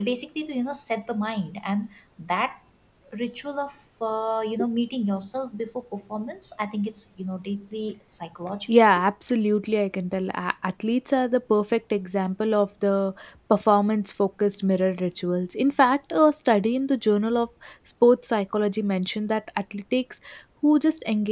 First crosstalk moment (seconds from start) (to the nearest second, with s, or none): none